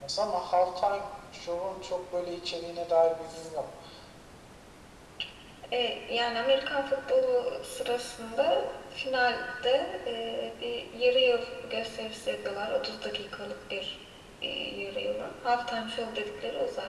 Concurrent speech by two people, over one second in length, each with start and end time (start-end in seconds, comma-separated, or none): none